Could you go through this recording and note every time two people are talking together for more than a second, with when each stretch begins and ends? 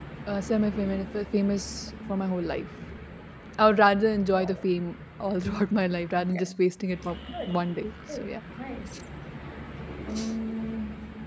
none

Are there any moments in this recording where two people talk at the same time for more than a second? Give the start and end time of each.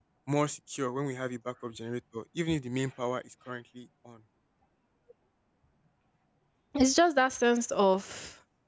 none

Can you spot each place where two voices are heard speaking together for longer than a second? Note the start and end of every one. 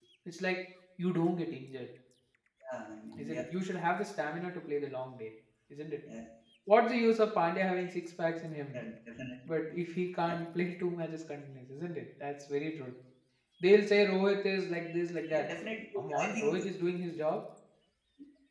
none

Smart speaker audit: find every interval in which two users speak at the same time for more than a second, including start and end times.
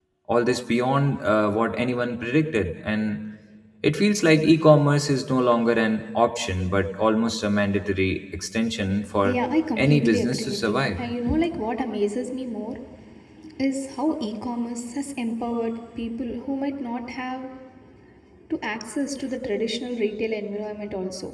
9.8-11.0

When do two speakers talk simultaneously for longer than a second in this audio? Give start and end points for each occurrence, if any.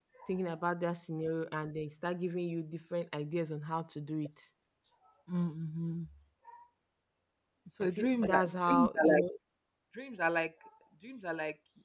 8.0-9.2

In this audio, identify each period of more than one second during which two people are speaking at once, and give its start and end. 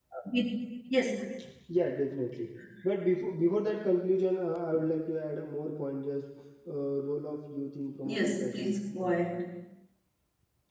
8.0-9.3

